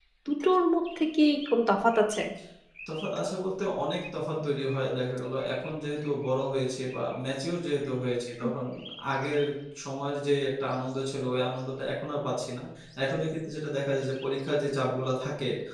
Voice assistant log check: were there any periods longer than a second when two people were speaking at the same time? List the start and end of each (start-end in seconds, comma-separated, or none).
none